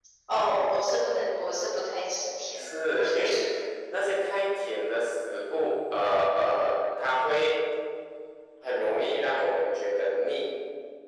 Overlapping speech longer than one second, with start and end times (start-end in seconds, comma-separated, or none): none